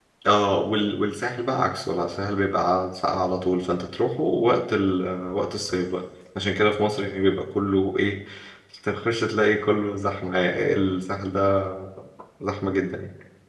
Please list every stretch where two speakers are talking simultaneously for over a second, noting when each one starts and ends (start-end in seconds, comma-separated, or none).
none